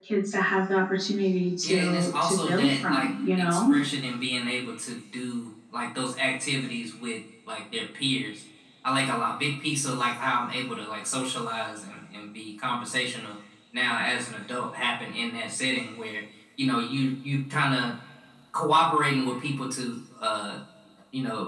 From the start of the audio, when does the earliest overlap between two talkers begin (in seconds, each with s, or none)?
1.6 s